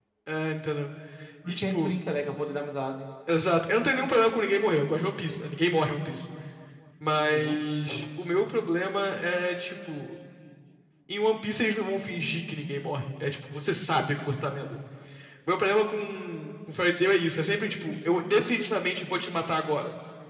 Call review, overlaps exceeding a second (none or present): none